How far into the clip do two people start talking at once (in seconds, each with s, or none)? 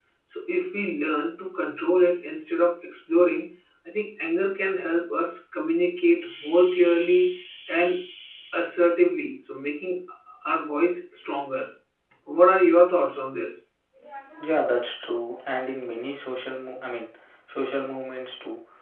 none